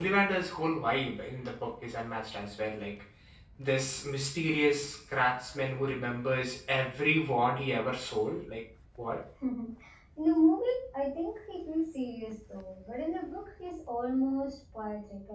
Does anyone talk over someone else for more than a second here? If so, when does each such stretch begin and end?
none

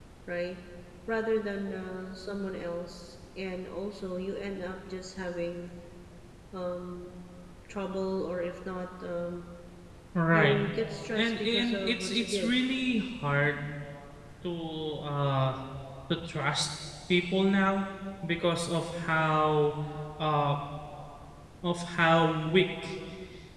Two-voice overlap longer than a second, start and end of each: 11.2-12.6

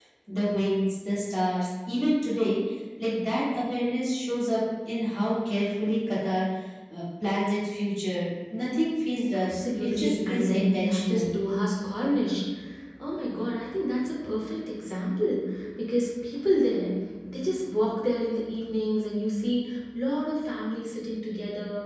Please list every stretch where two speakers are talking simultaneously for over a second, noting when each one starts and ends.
9.3-11.3

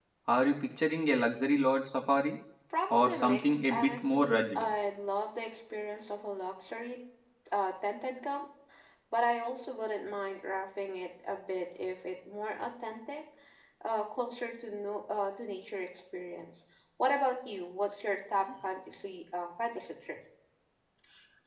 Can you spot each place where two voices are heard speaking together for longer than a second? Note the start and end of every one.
2.9-4.6

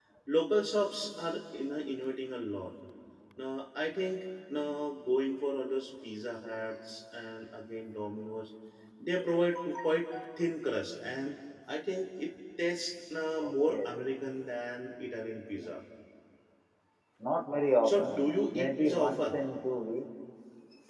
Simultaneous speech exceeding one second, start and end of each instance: 17.8-19.4

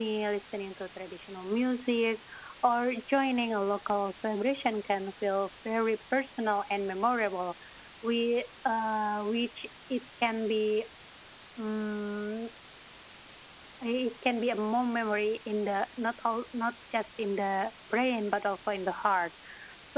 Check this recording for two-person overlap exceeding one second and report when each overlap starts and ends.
none

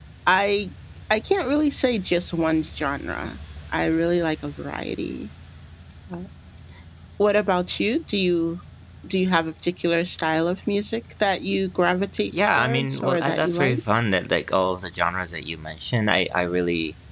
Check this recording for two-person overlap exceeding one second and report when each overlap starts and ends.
12.3-13.8

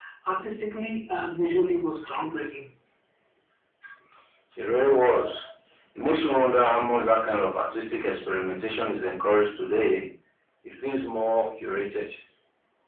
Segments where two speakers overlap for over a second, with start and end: none

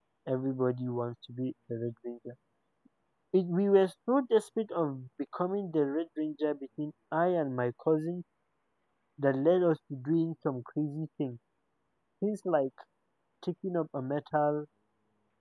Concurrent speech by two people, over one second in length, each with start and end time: none

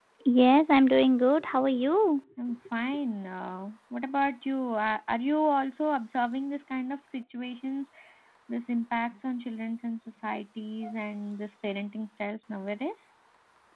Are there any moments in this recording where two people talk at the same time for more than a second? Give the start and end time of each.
none

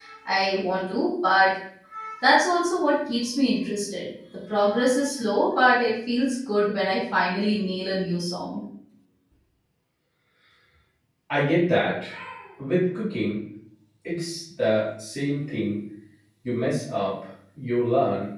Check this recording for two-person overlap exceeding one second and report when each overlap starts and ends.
none

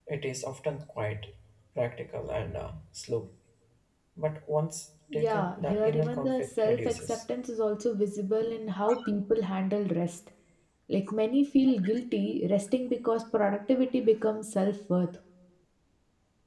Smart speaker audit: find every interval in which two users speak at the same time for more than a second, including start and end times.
5.2-7.2

